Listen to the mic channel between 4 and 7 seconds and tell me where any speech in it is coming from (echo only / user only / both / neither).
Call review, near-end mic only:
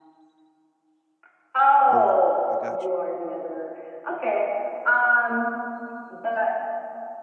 echo only